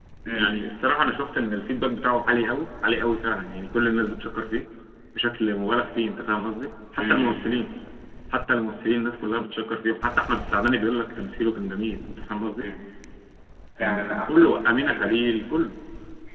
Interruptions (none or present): present